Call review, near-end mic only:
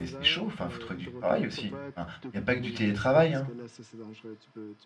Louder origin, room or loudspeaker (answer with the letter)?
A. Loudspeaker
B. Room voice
B